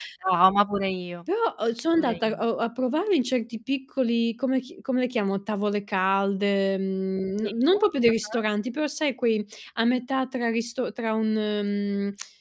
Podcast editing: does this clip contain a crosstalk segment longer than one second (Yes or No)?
No